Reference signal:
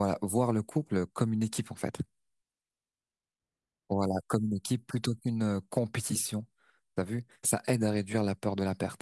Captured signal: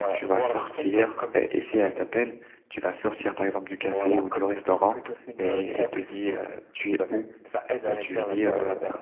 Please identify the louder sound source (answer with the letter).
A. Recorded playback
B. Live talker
B